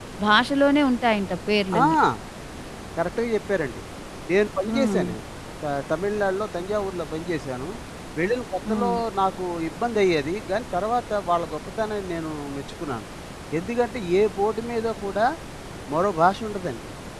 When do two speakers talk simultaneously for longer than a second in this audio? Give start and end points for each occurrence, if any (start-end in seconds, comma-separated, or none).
none